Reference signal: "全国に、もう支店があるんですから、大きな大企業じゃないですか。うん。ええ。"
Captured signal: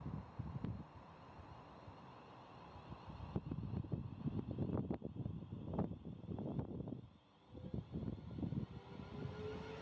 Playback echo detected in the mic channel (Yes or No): No